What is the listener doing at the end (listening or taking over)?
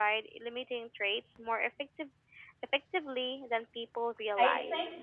taking over